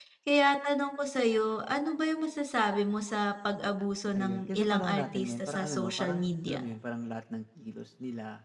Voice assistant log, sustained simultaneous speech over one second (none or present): present